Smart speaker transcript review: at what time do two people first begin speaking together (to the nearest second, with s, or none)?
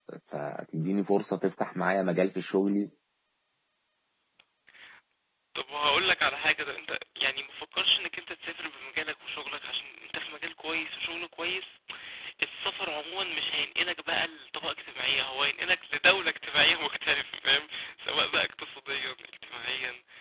none